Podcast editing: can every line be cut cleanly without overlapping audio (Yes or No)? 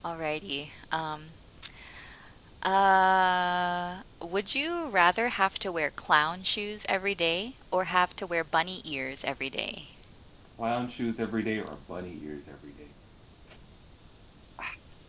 Yes